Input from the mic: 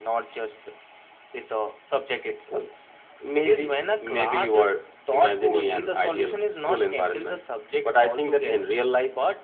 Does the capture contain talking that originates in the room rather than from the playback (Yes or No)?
No